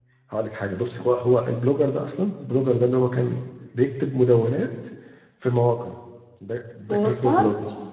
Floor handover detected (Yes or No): No